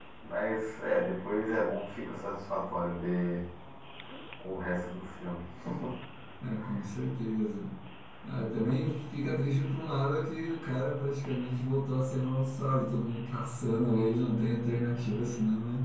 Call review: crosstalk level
none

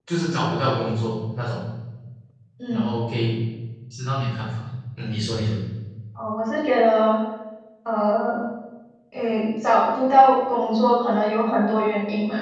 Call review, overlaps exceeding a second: none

